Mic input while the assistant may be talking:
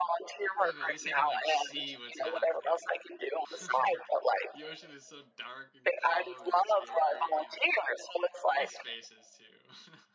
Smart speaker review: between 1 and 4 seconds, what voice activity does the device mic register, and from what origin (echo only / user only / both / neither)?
both